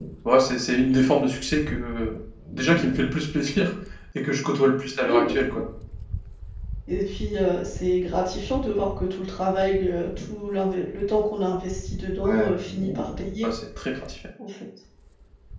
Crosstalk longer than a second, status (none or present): none